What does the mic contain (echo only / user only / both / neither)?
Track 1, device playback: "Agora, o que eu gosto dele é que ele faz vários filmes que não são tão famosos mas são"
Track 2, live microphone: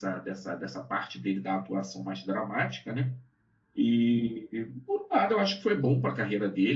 user only